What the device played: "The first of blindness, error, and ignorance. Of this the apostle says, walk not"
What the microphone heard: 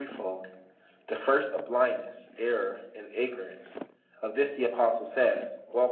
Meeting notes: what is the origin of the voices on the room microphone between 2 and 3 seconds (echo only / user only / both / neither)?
echo only